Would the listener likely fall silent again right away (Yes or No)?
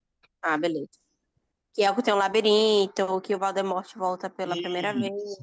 No